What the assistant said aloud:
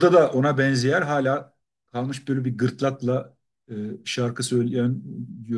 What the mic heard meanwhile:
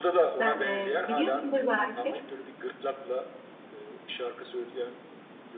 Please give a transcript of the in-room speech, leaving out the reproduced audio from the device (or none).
Sen e, biliyorsundur belki